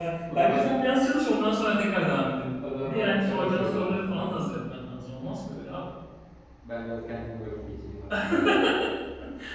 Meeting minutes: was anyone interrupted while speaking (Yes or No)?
Yes